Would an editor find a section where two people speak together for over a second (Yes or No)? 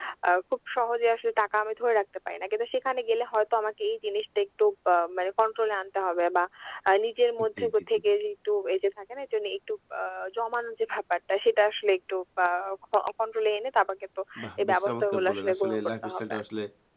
Yes